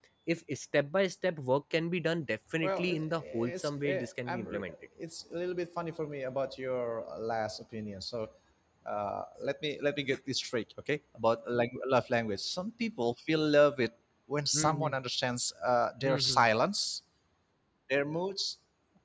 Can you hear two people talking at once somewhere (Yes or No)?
Yes